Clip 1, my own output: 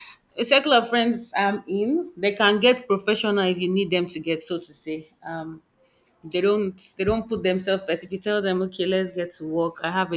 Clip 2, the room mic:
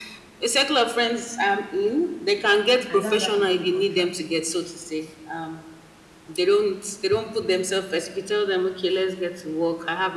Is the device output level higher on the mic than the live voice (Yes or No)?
Yes